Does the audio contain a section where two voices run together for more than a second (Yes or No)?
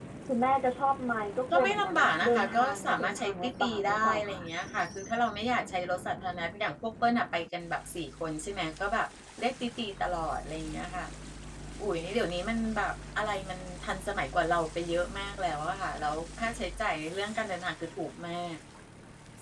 Yes